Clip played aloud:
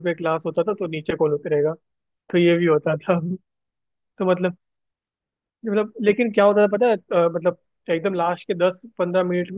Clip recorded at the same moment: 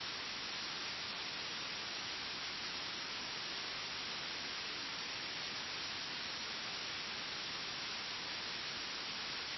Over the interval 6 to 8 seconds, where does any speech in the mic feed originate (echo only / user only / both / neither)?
neither